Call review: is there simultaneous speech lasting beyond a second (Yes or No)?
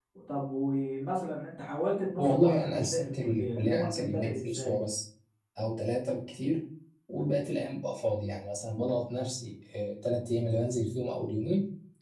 Yes